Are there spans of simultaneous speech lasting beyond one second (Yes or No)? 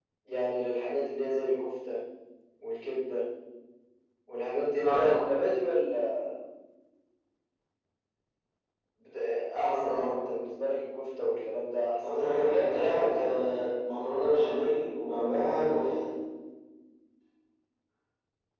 Yes